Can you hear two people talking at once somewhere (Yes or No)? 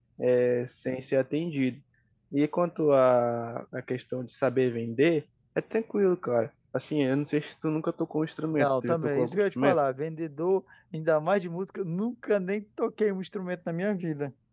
Yes